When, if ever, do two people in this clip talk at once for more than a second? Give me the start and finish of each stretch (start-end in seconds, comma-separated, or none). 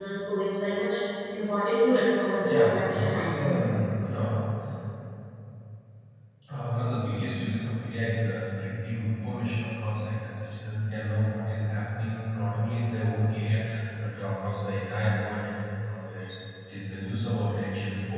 2.4-3.6